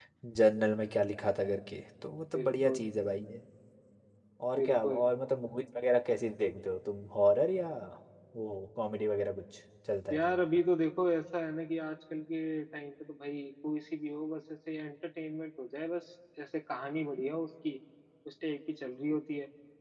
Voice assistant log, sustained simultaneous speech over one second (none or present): none